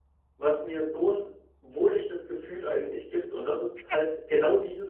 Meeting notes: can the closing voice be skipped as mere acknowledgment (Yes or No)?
Yes